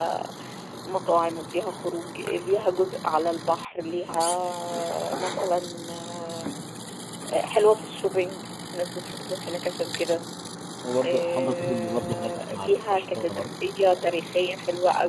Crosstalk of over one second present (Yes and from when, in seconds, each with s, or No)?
Yes, from 11.0 s